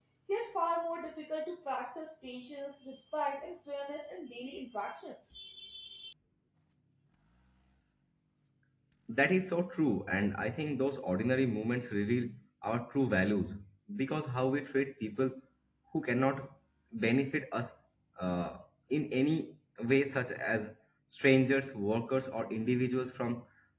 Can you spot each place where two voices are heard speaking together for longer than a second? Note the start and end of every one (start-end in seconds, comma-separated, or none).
none